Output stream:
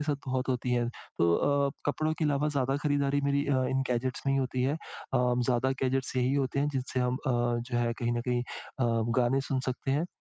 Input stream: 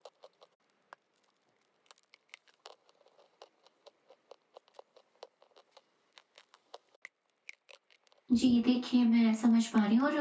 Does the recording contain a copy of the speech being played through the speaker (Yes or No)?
No